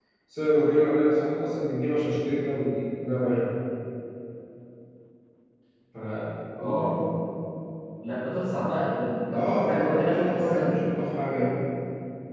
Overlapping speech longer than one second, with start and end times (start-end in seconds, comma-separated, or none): 9.3-10.8